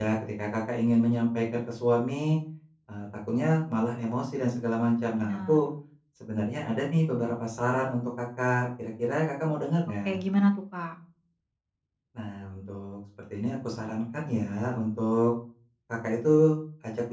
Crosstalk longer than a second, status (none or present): none